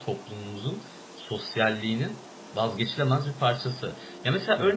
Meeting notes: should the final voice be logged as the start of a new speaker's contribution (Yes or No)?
No